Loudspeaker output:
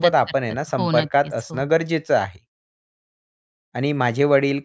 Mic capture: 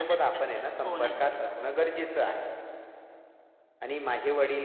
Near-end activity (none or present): none